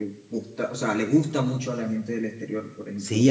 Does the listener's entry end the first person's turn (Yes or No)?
Yes